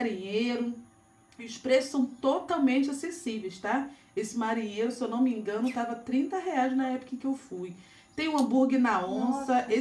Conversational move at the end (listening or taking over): listening